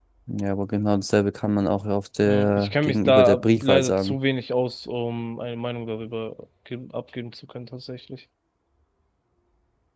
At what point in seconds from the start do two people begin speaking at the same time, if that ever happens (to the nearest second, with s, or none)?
2 s